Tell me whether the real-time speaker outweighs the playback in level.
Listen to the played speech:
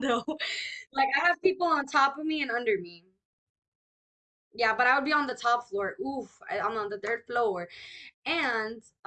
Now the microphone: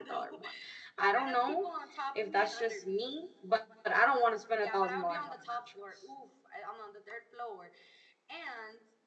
Yes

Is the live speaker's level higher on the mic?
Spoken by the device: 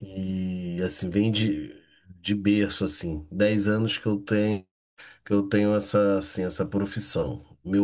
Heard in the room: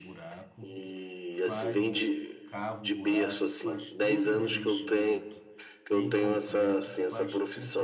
No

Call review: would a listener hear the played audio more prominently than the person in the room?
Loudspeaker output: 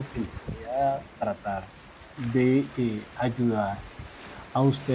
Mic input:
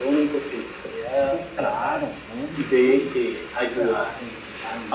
Yes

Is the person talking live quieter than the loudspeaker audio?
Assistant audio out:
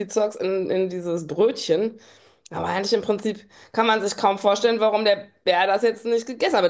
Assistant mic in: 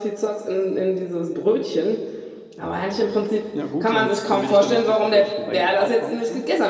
Yes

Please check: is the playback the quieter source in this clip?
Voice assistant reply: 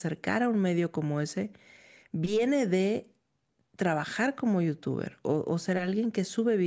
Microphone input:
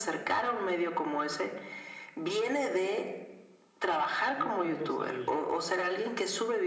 No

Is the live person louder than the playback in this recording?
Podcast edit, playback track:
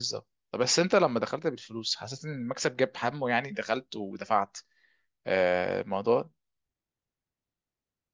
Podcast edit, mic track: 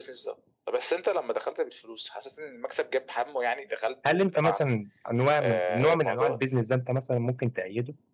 Yes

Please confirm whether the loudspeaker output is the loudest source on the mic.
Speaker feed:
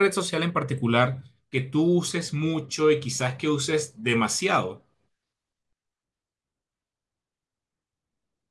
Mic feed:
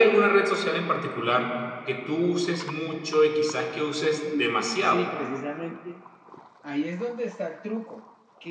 Yes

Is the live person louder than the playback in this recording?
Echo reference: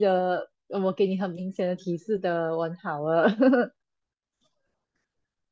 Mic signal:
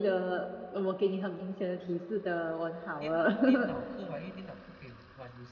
No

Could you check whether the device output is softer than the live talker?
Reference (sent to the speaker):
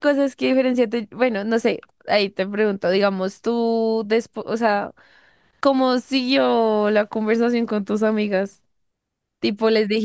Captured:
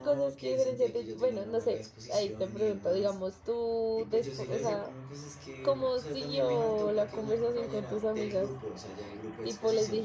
No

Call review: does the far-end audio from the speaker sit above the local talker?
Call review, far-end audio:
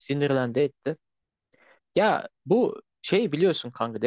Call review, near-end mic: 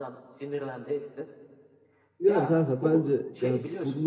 No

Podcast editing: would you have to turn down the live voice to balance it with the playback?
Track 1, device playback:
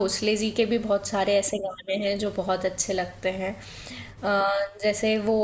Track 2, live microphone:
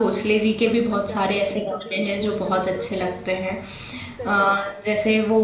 No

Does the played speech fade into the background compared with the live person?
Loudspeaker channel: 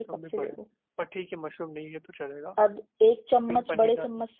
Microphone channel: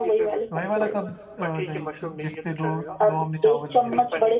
No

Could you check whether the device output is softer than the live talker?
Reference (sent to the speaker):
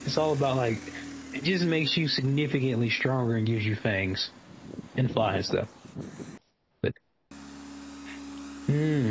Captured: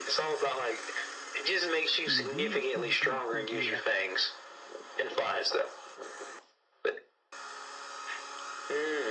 No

